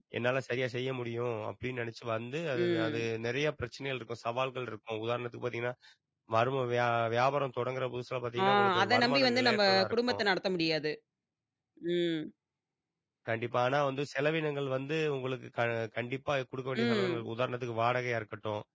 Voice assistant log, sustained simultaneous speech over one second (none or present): present